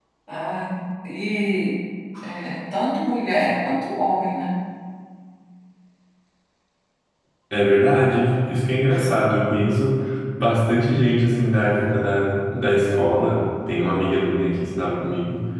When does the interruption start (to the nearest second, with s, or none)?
none